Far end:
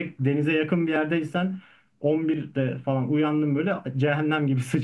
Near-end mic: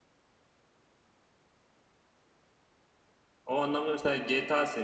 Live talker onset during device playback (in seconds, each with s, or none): 3.5 s